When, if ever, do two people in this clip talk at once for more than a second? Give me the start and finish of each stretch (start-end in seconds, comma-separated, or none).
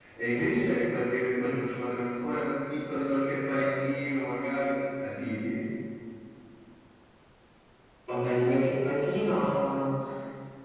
none